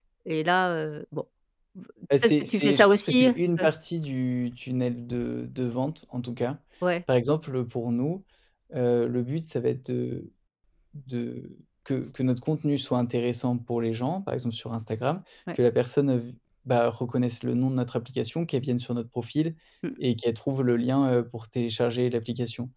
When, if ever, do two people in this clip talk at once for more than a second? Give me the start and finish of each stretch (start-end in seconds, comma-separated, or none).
2.2-3.6